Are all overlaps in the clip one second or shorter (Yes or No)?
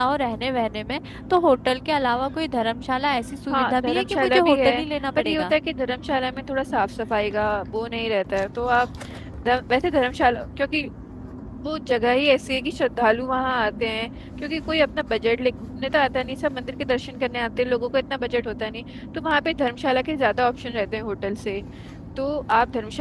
No